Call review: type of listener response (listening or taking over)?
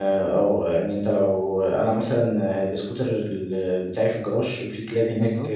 listening